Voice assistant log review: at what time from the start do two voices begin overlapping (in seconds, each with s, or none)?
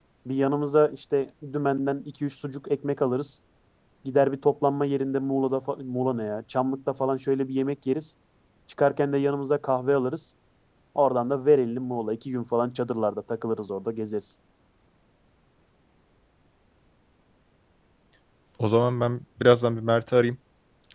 none